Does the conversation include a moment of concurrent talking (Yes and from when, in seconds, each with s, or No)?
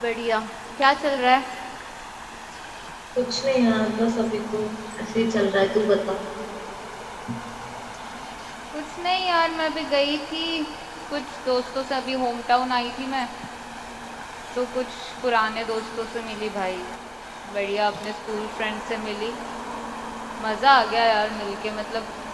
No